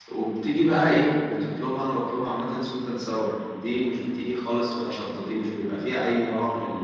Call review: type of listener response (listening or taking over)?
listening